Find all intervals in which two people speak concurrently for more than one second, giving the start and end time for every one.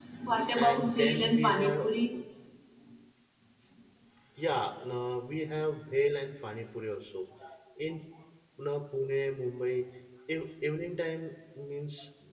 0.6-1.9

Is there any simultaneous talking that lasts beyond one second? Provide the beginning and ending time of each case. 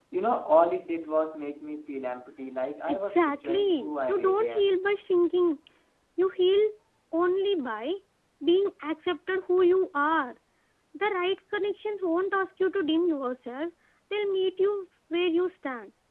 2.9-4.7

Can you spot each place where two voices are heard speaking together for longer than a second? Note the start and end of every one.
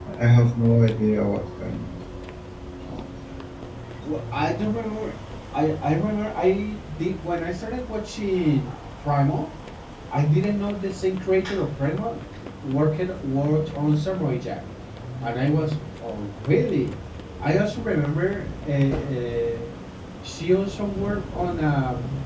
none

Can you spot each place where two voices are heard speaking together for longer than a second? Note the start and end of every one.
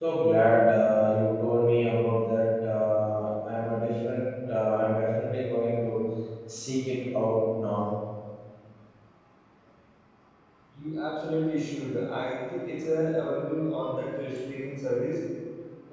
none

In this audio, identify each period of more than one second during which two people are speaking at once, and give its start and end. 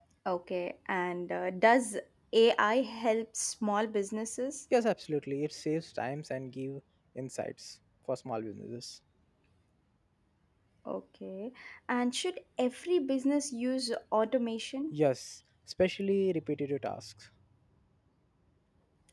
none

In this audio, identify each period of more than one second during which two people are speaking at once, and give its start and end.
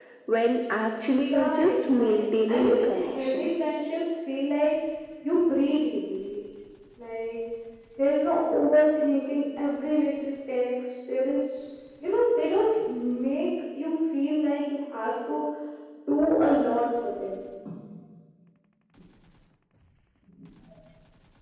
1.3-3.5

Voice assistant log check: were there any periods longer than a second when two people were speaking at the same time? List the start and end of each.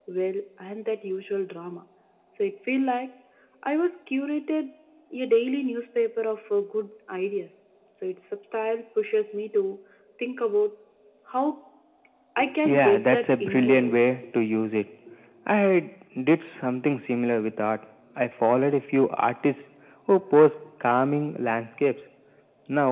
12.6-14.0

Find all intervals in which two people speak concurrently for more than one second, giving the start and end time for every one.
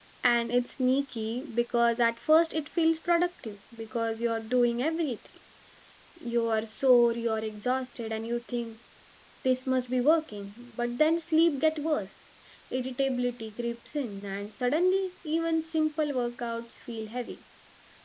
none

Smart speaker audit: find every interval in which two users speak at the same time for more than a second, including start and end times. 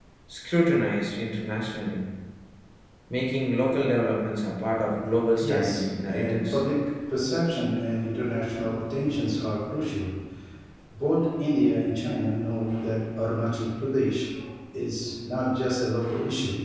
5.4-6.6

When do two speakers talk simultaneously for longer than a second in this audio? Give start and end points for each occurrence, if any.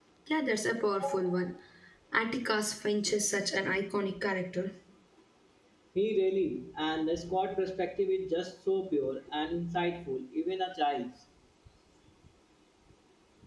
none

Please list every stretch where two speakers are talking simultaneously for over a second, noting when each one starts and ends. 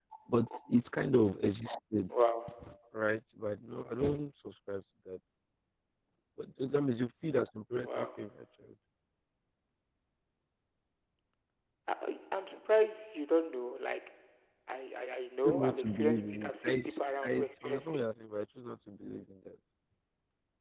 15.4-18.0

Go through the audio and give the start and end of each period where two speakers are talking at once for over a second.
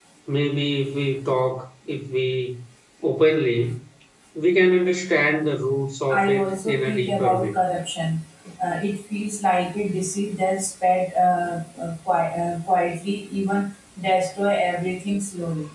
6.1-7.5

